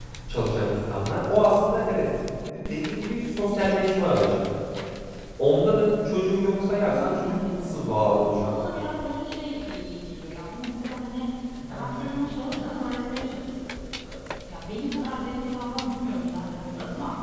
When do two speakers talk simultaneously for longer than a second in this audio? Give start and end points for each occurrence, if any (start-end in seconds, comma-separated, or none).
6.6-8.0